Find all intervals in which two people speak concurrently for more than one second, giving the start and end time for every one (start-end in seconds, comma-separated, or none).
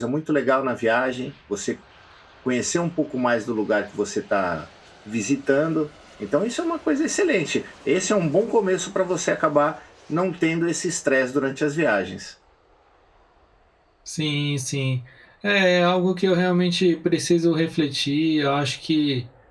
none